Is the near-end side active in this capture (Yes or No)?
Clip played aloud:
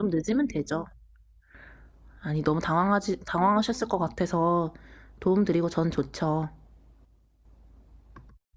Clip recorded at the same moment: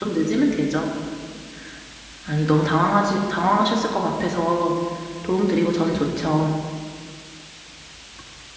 No